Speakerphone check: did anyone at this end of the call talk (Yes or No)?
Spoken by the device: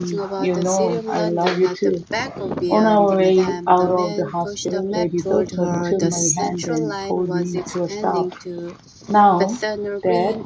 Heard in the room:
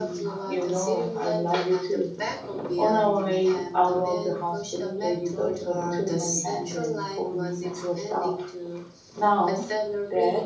No